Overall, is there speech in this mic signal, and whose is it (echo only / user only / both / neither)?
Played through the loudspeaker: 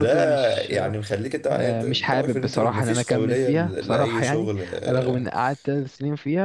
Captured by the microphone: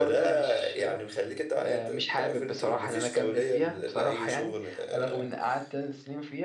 echo only